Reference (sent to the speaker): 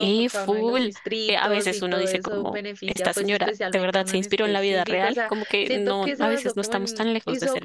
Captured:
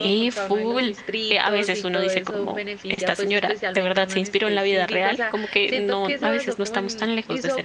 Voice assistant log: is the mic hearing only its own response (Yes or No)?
Yes